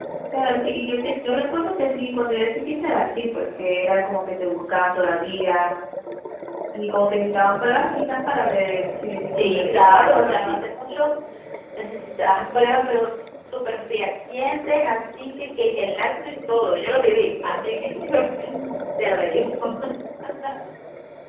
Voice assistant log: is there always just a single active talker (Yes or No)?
No